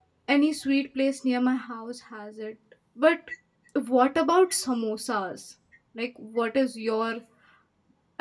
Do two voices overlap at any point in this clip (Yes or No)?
No